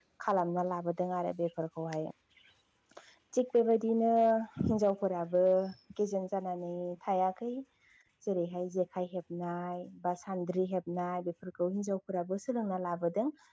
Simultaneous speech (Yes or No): No